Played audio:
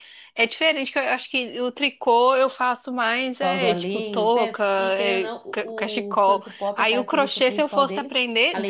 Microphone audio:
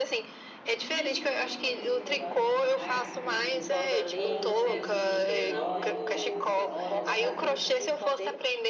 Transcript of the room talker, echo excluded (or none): Isso, tem, eu tenho super-herói, tenho Marvel, tenho outros também sem ser super-herói, mais com história, sabe?